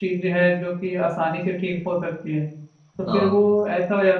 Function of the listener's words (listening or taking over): listening